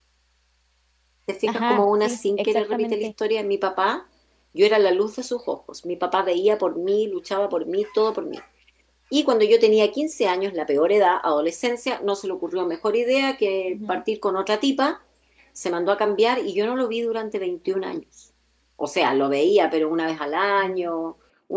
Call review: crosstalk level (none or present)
present